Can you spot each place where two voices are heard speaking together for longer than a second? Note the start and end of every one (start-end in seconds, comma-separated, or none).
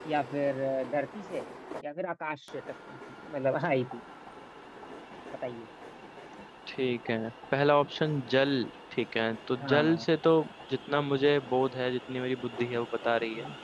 none